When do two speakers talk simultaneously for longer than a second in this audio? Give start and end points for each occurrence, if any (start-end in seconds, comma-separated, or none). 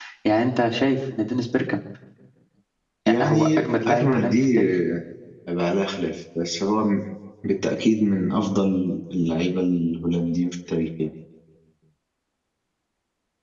3.2-4.8